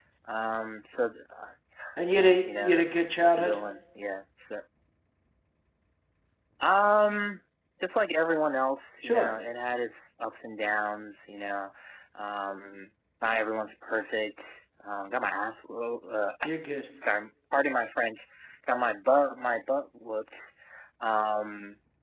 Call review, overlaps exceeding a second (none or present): present